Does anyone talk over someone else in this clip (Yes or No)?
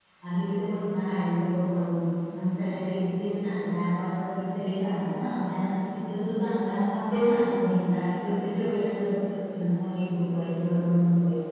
No